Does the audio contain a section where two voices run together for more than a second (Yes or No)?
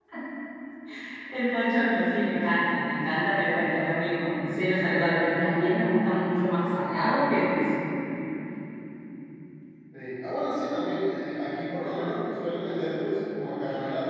No